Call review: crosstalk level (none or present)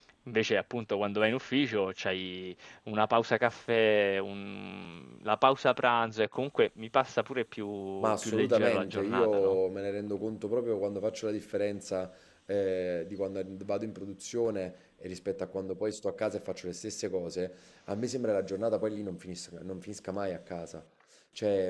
present